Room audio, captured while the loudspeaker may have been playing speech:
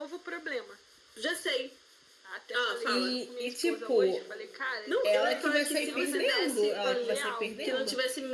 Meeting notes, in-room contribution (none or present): present